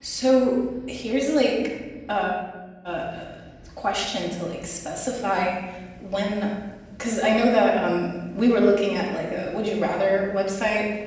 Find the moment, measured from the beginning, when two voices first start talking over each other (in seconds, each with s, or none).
none